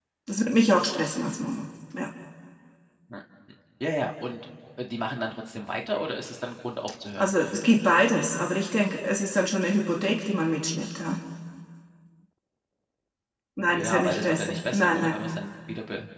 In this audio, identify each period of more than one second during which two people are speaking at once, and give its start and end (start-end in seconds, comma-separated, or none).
13.7-15.3